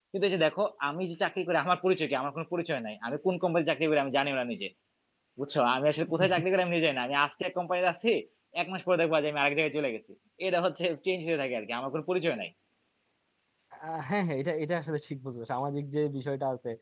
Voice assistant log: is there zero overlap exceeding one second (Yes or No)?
Yes